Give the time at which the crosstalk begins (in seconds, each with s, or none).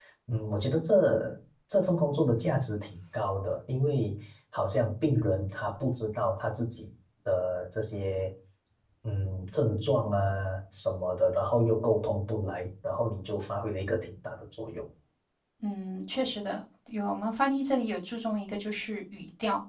none